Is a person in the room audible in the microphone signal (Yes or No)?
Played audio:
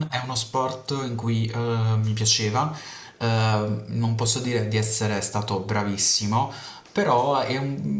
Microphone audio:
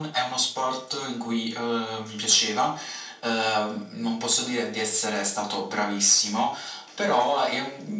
No